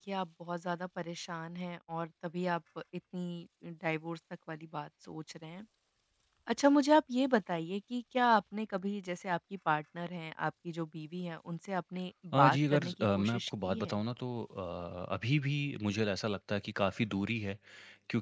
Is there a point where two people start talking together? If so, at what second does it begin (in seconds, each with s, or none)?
12.3 s